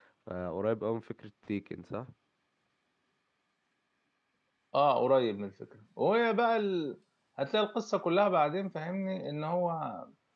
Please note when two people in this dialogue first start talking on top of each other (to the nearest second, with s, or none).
none